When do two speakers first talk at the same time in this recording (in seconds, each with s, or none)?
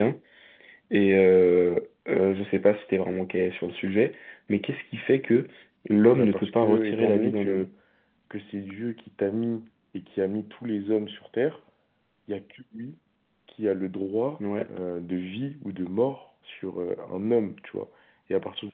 6.2 s